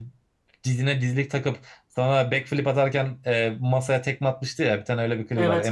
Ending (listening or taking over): taking over